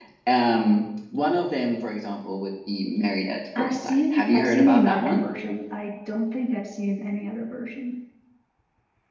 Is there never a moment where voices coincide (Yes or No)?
No